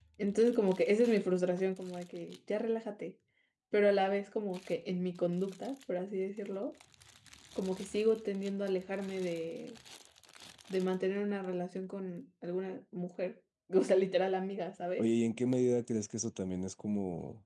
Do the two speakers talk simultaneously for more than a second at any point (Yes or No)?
No